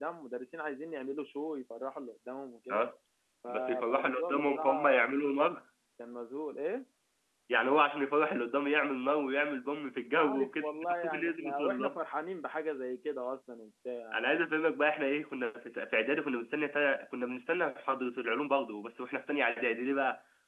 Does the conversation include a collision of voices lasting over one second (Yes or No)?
Yes